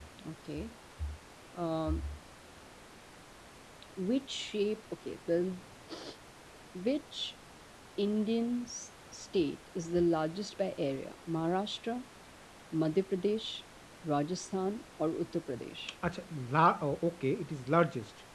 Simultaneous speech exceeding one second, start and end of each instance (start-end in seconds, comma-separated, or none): none